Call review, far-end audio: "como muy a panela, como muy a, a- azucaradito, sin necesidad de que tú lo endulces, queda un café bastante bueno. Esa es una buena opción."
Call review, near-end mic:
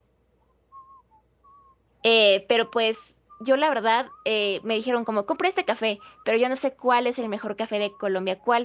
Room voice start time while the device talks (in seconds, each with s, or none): 2.0 s